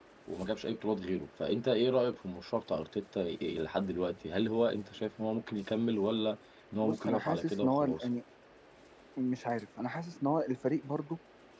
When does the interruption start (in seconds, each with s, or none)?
6.8 s